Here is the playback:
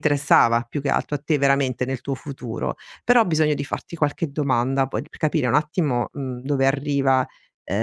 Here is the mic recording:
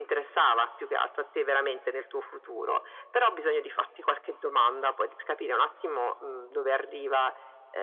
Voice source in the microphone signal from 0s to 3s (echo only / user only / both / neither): echo only